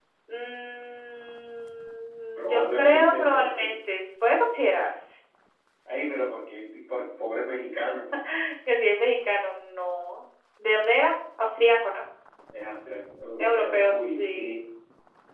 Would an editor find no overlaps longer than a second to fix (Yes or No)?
No